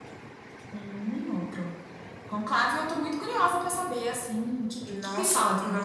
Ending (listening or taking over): taking over